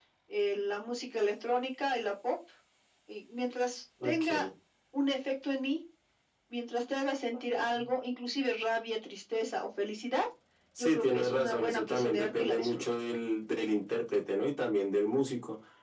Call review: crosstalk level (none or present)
present